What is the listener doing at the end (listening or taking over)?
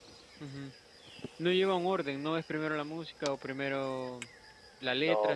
taking over